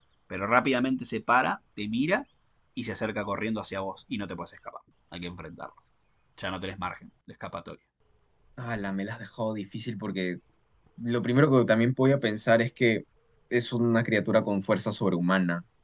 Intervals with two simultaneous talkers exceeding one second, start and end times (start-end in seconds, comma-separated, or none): none